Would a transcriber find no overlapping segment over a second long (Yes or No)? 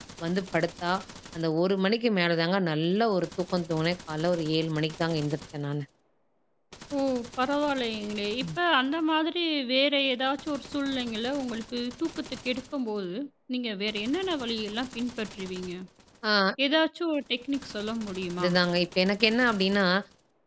Yes